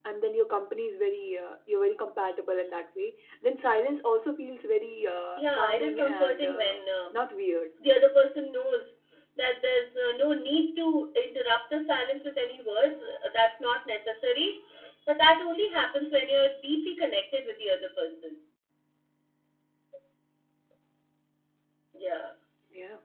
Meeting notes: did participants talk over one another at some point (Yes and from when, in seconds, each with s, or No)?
Yes, from 5.4 s